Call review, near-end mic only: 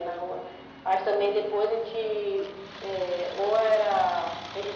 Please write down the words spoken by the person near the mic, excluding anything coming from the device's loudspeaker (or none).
none